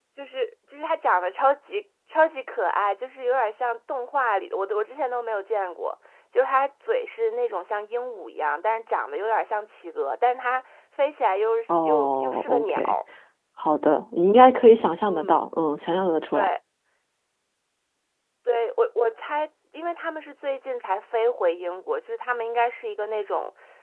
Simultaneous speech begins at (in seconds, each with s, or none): 11.7 s